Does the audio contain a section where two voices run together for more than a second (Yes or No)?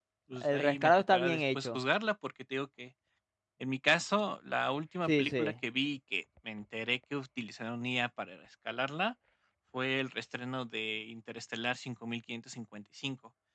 Yes